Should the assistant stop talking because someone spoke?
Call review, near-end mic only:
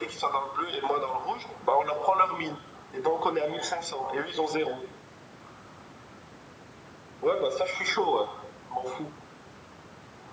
No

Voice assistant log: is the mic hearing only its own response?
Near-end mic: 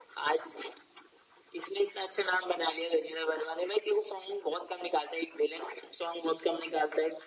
Yes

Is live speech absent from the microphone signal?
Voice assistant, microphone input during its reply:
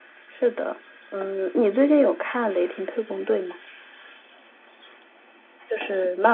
Yes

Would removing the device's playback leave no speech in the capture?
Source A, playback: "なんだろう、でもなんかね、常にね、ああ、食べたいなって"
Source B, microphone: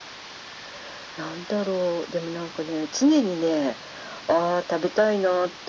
Yes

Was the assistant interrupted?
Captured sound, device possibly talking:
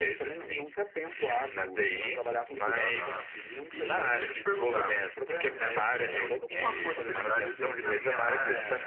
Yes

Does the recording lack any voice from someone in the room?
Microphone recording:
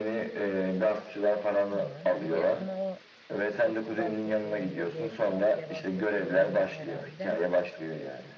No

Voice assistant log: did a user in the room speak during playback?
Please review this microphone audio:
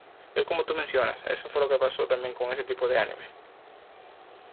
Yes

